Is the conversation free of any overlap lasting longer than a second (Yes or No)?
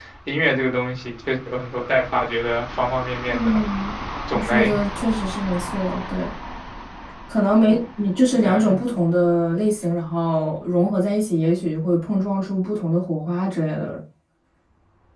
Yes